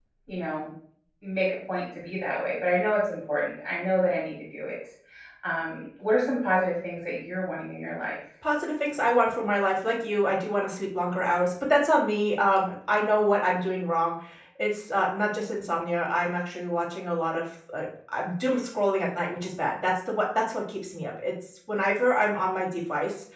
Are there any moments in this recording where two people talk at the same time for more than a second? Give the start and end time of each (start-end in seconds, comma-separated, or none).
none